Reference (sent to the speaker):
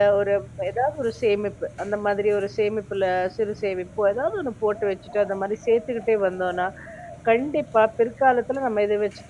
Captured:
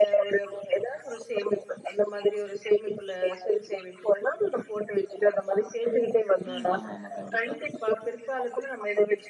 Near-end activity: present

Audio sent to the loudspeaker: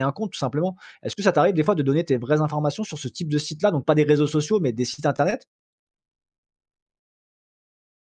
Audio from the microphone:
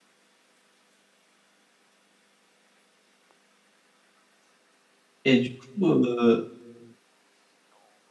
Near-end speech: present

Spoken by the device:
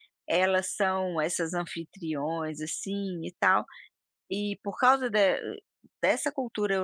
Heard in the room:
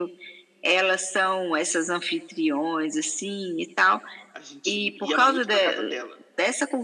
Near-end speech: present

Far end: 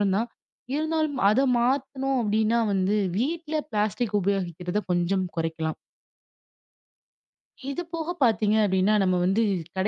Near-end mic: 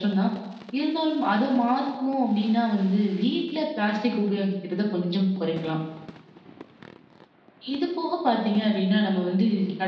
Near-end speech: none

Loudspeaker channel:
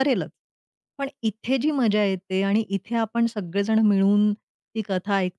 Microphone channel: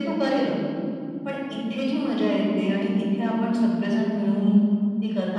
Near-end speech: none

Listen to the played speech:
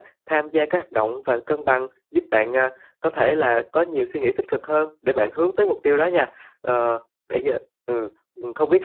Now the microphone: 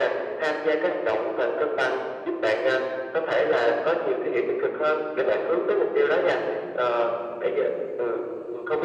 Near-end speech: none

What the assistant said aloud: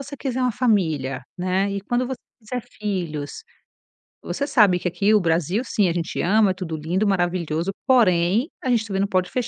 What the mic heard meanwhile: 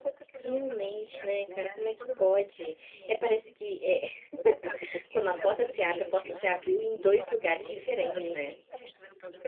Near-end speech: present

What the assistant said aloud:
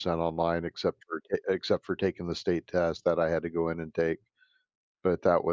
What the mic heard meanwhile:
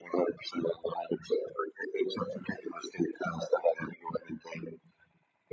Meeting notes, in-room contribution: none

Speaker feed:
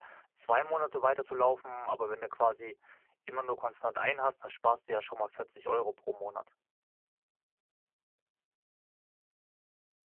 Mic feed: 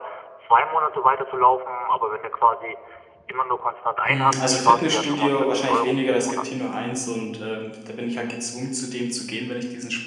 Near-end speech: present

